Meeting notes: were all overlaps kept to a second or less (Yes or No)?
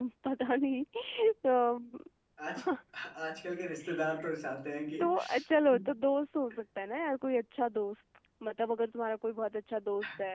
Yes